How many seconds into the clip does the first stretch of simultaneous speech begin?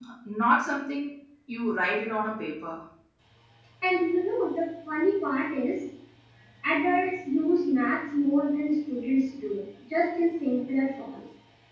none

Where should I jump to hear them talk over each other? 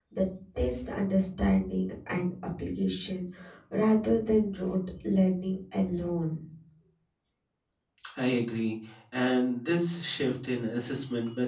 none

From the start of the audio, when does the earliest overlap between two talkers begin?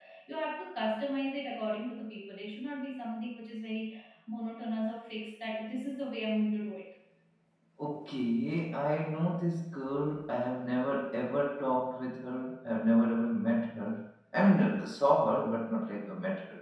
none

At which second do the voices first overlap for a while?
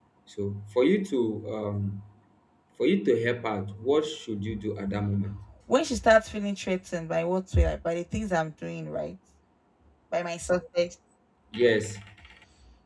none

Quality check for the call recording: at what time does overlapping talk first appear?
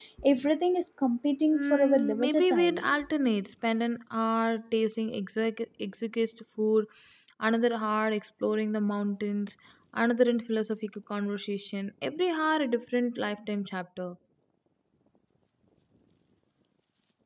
2 s

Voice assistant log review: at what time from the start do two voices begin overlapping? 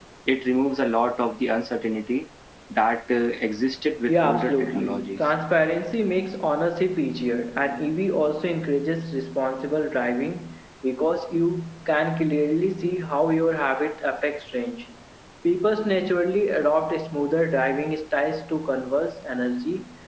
4 s

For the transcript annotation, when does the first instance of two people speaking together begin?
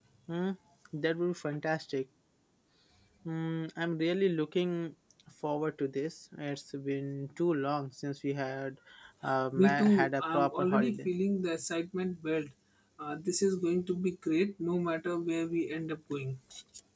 10 s

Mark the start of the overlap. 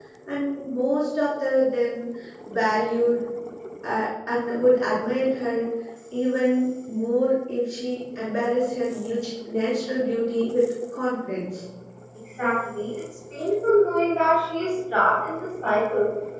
none

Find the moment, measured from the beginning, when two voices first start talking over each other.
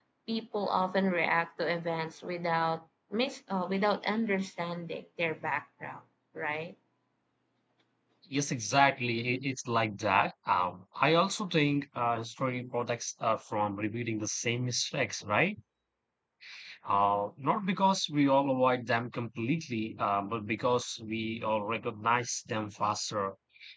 none

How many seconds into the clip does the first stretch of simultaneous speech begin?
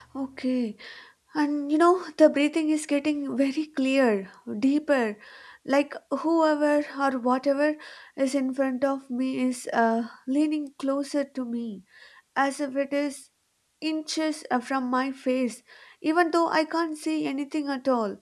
none

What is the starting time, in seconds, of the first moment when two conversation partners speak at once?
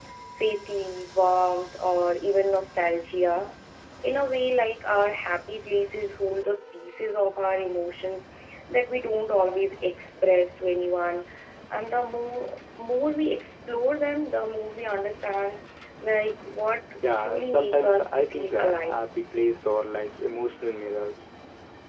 17 s

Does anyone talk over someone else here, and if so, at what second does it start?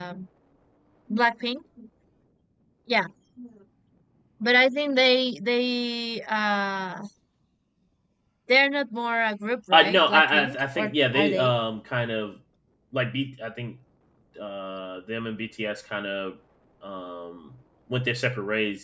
10 s

